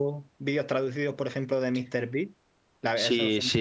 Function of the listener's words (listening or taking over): taking over